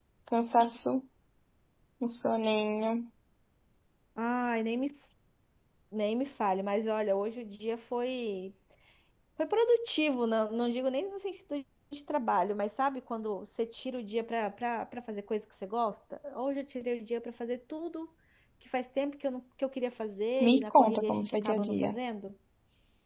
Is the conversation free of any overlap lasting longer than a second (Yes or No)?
No